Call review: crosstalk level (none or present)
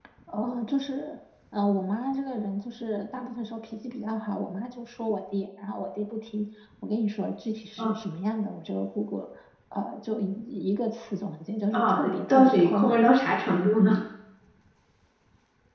present